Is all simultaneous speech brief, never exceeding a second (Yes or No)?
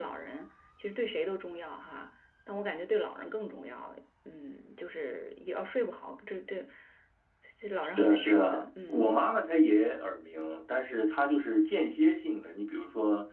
No